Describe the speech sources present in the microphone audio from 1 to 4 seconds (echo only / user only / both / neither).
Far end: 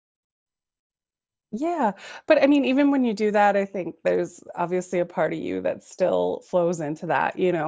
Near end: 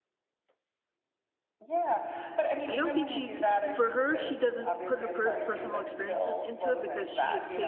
both